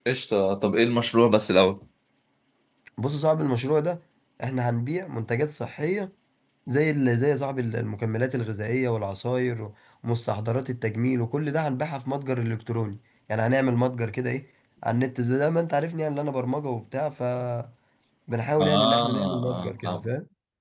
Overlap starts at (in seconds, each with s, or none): 18.7 s